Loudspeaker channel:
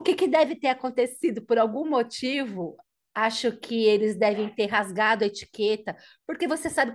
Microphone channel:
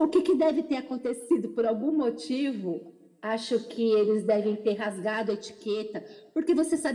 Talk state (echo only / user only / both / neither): echo only